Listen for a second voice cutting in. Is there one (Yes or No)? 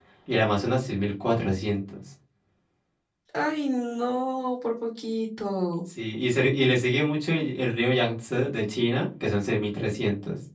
No